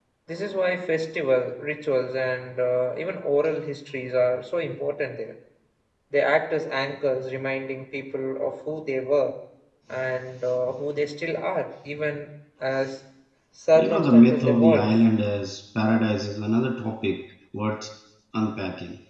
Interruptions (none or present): present